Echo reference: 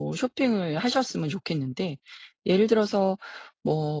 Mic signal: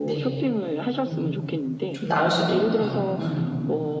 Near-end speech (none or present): present